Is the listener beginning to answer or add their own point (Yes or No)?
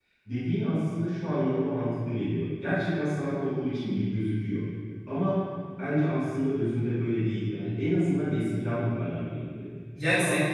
Yes